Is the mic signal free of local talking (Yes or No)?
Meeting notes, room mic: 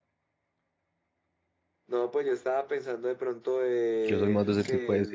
No